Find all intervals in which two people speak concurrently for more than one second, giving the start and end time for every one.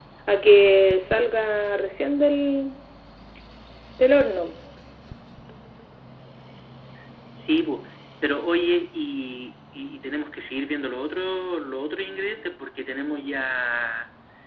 none

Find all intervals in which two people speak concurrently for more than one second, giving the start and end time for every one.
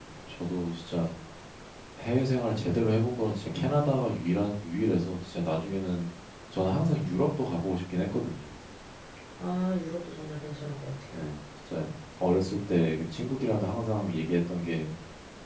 none

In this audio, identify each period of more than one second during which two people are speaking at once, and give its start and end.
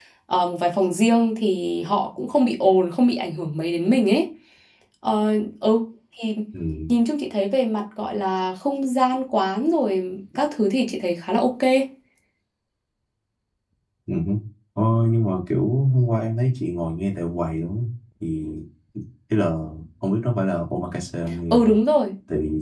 none

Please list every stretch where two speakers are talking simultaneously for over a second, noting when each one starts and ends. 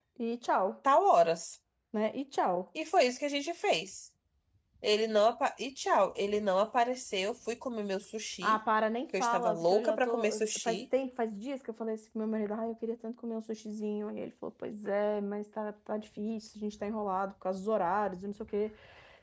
9.2-10.8

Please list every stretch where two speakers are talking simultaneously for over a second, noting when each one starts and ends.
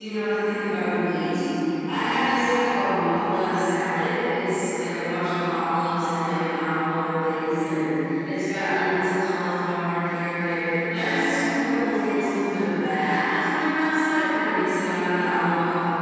none

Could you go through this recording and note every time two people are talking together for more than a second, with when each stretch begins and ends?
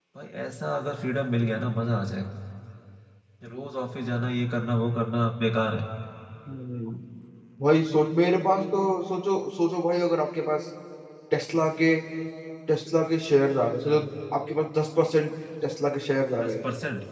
none

